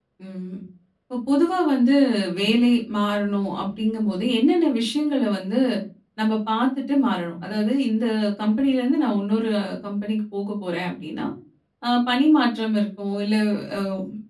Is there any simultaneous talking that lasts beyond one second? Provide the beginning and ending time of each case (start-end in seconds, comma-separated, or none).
none